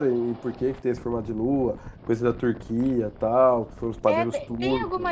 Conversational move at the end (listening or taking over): taking over